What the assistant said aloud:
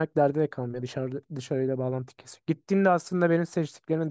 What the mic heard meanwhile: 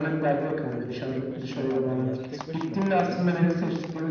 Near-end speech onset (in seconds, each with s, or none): 0.7 s